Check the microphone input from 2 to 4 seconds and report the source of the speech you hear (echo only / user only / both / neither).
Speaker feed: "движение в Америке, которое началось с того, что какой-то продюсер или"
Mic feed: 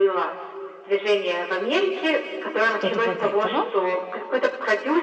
both